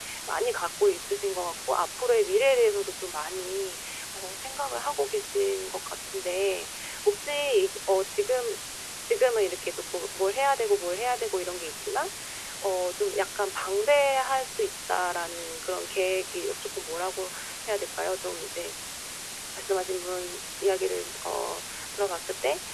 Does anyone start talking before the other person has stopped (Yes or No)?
No